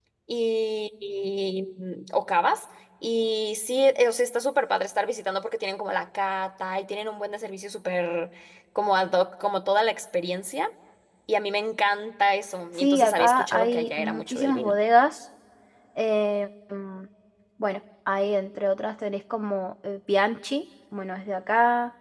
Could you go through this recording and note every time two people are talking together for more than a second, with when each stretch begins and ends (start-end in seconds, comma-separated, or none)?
12.8-14.7